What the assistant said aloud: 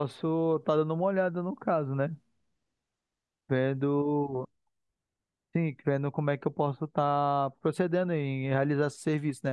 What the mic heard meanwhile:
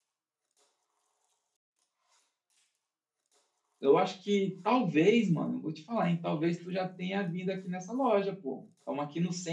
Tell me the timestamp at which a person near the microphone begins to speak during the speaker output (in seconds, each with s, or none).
3.8 s